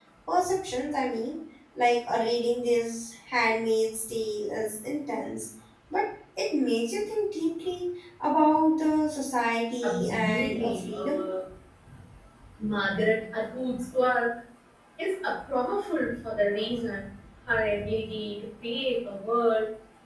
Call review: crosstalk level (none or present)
present